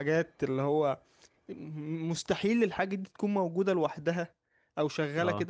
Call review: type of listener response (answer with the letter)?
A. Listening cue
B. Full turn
A